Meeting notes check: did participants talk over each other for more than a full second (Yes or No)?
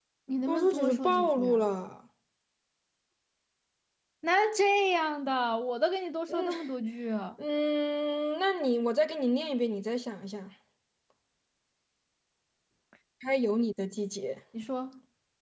Yes